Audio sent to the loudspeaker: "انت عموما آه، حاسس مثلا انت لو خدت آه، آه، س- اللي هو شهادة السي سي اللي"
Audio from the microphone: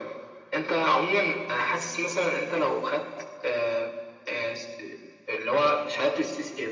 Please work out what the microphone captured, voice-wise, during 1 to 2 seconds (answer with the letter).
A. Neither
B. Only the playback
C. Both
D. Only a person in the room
B